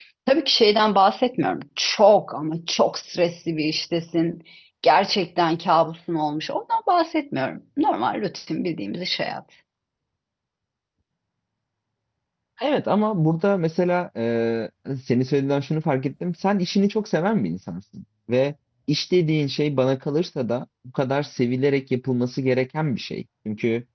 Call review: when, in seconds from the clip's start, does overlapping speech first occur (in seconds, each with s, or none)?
none